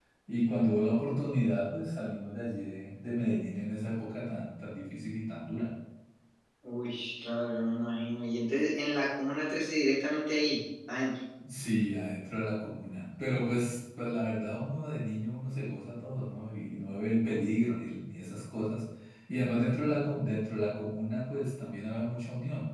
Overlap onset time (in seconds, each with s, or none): none